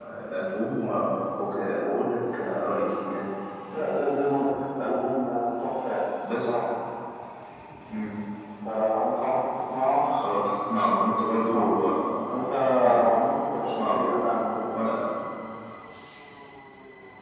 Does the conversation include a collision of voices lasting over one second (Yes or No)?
No